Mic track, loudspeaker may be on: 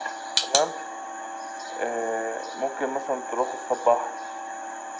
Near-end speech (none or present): none